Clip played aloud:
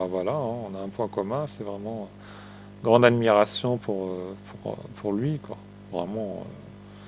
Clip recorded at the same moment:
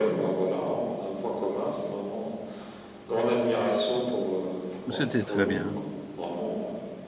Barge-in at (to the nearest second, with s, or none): 5 s